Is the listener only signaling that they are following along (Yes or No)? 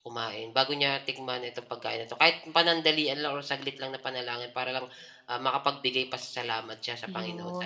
No